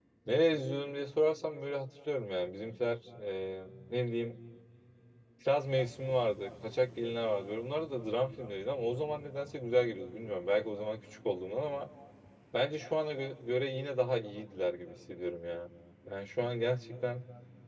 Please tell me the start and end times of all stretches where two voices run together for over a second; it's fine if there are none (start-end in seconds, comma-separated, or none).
none